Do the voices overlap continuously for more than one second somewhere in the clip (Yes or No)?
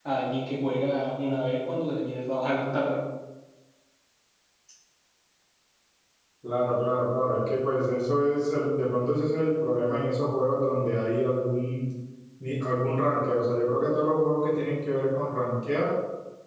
No